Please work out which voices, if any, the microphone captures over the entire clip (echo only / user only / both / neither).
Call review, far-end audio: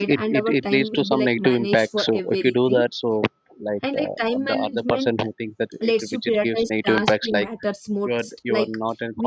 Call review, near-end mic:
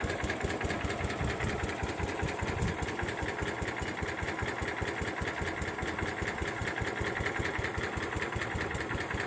neither